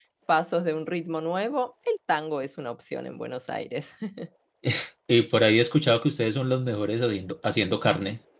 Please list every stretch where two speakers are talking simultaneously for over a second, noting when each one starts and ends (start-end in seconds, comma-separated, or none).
none